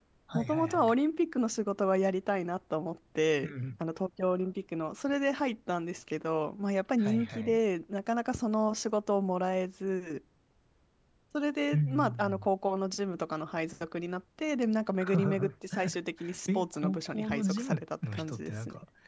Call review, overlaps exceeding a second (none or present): present